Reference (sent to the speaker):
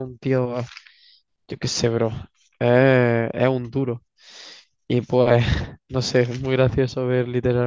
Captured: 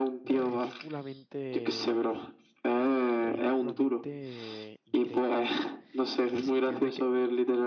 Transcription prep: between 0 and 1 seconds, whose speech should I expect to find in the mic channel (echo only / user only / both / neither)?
both